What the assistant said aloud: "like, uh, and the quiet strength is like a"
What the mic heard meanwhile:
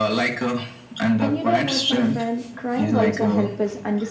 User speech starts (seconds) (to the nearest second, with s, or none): 1 s